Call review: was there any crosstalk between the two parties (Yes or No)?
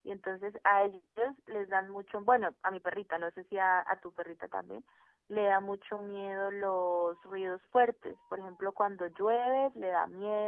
No